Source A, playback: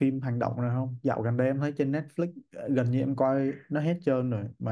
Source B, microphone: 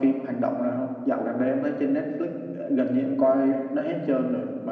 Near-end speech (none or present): none